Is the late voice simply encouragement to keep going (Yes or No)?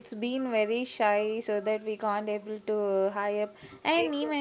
Yes